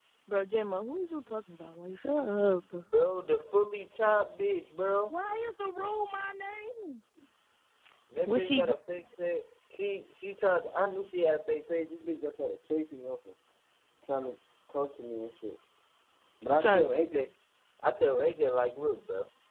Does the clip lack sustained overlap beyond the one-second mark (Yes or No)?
Yes